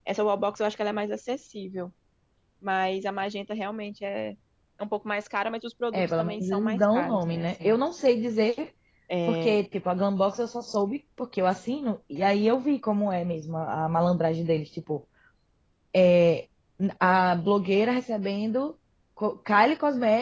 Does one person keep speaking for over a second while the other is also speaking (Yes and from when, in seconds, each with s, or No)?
Yes, from 5.9 s